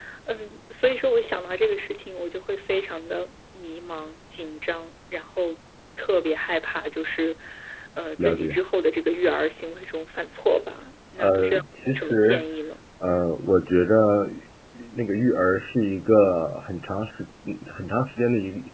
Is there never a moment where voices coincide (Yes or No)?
No